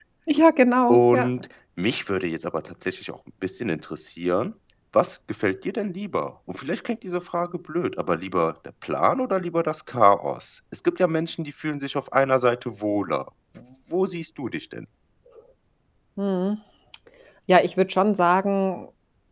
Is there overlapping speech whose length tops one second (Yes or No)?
No